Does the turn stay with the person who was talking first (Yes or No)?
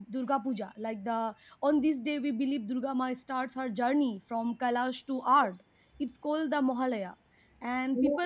Yes